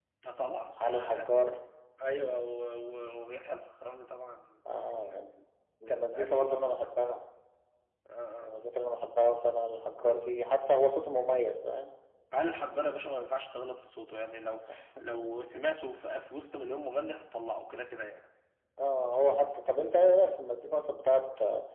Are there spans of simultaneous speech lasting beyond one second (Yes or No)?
Yes